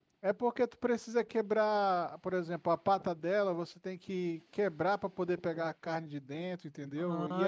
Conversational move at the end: taking over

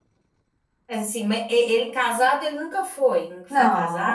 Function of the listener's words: taking over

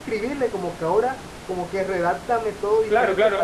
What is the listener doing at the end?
taking over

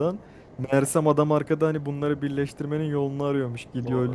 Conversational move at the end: listening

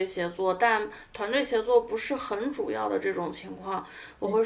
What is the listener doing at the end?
listening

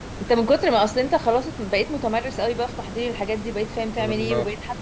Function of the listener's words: listening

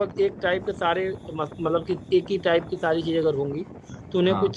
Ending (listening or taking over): listening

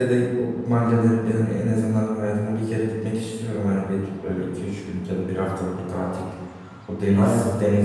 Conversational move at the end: listening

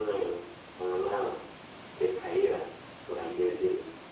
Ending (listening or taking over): taking over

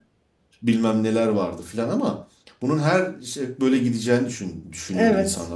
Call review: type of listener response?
listening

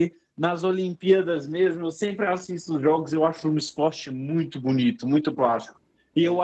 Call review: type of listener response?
listening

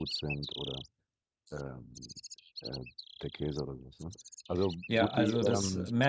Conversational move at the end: taking over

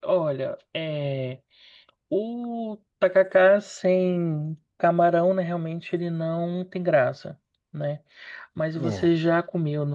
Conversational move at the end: listening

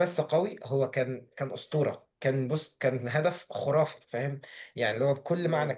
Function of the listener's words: listening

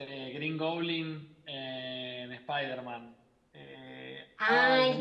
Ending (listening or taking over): taking over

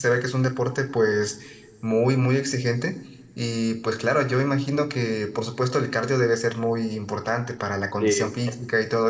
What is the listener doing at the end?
listening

